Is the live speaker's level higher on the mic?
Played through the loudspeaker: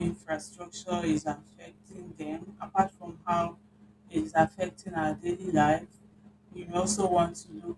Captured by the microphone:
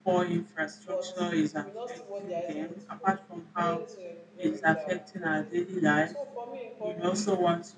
No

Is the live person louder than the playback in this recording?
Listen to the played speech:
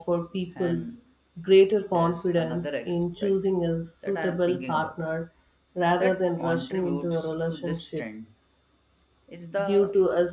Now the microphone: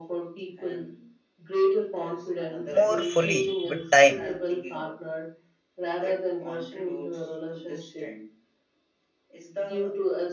Yes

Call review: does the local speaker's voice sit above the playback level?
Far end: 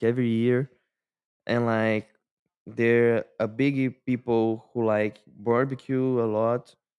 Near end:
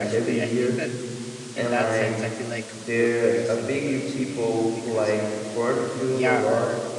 No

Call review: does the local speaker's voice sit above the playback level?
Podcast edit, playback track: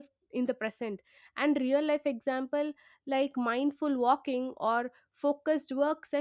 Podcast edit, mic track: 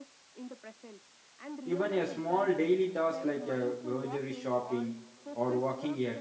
Yes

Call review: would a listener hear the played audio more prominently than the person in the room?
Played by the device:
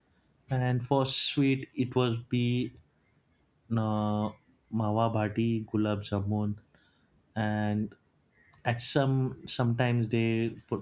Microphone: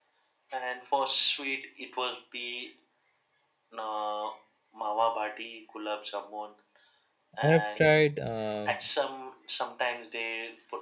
No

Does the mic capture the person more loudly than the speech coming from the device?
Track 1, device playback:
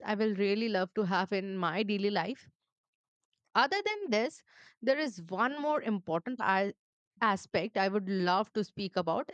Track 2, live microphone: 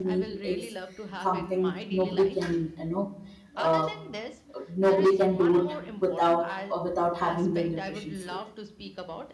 Yes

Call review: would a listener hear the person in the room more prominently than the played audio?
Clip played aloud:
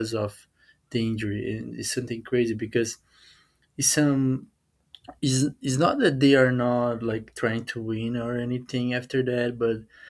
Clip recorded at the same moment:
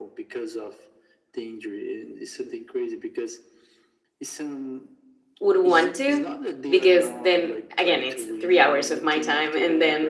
Yes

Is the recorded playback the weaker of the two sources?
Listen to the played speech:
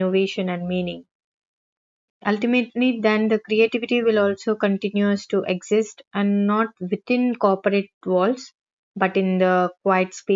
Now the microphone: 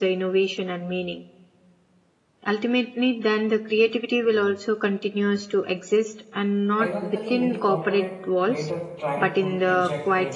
No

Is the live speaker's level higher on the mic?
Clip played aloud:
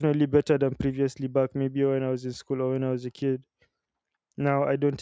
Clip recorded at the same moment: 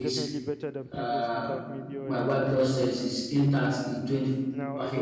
Yes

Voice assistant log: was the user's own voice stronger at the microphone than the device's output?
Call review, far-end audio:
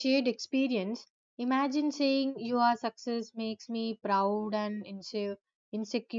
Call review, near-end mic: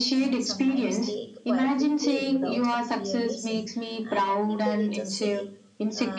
No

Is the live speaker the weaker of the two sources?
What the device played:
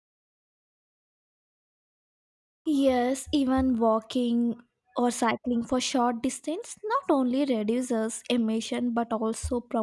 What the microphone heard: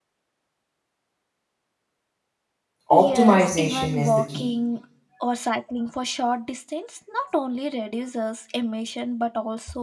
No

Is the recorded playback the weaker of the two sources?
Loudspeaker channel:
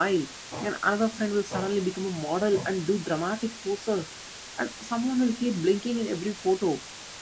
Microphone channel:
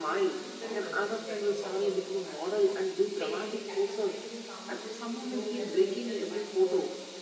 No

